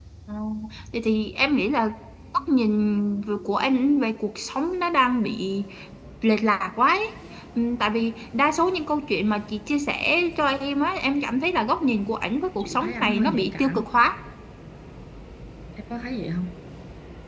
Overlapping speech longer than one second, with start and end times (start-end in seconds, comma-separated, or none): 12.6-13.9